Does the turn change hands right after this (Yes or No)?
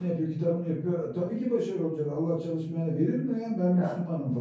No